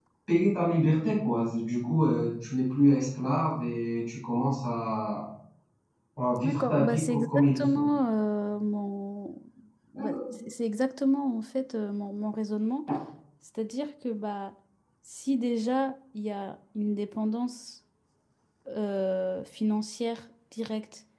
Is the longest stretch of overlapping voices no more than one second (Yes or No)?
No